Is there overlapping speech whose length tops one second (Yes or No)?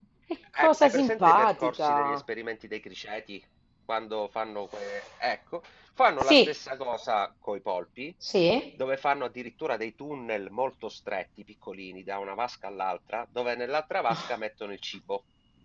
Yes